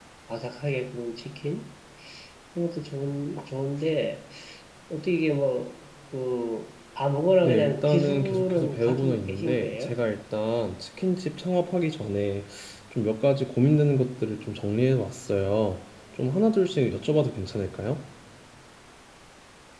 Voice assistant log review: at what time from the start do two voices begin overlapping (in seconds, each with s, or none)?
7.4 s